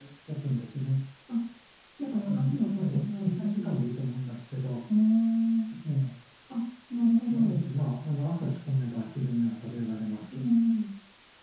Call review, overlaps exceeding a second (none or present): present